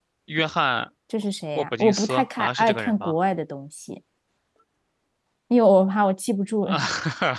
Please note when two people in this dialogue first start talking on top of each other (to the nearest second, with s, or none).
2 s